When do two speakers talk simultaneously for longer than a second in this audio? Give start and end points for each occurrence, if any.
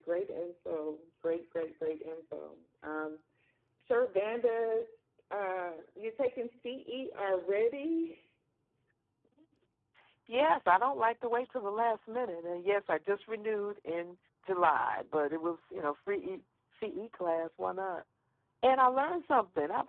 none

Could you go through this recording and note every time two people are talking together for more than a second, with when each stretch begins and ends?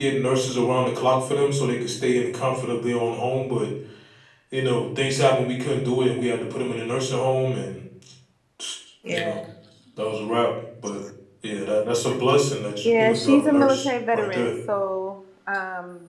12.8-14.5

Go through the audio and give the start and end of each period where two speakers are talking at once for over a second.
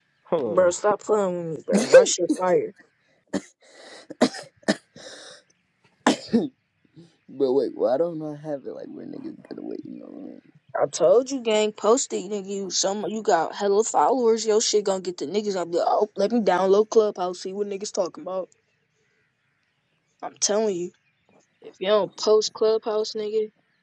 none

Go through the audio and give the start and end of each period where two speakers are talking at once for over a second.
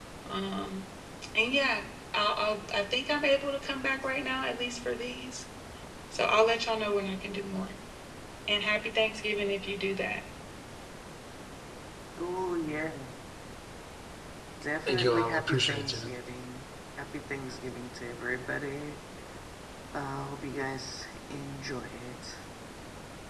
14.9-16.1

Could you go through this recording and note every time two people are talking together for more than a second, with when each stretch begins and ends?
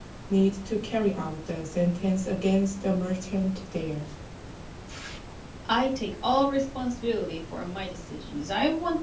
none

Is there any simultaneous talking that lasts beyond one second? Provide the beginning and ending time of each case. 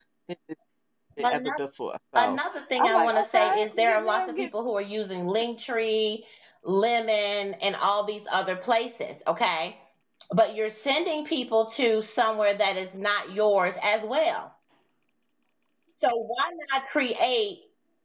2.1-4.5

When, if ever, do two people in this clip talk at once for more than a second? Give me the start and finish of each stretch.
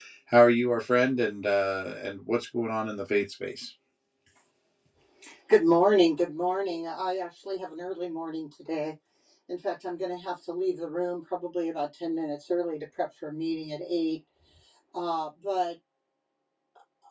none

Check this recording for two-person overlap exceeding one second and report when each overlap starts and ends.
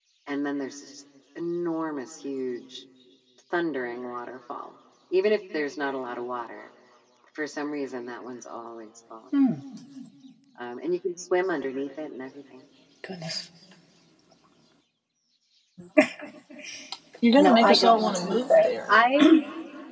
17.4-18.9

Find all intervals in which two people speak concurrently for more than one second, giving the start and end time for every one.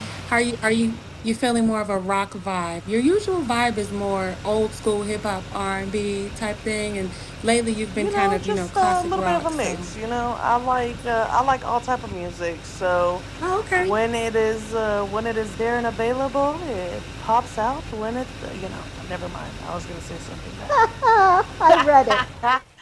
8.0-9.9

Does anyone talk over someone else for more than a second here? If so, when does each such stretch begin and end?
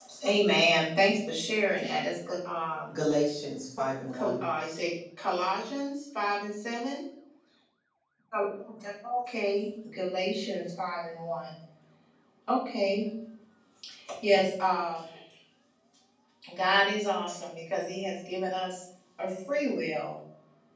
none

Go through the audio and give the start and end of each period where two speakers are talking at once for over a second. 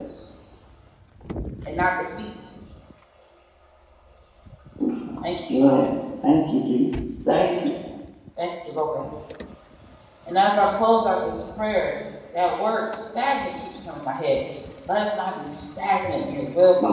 none

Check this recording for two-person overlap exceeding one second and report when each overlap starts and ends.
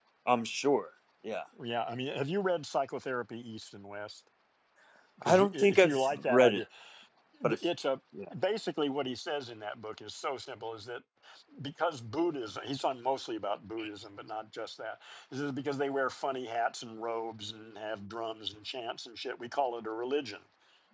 5.2-6.6

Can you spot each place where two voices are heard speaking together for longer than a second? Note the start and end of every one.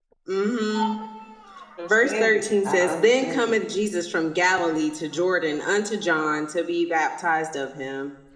1.9-3.6

